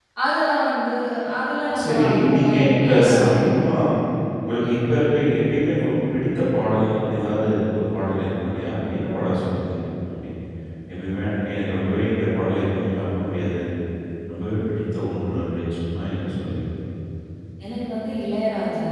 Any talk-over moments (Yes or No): Yes